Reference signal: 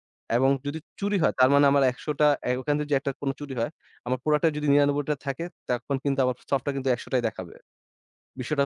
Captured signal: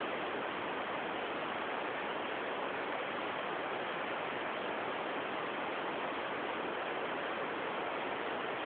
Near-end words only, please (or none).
none